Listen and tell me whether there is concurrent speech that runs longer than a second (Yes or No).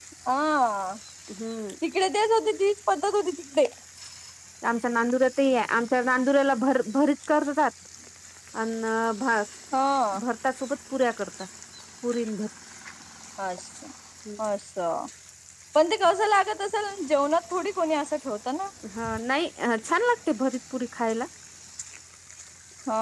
No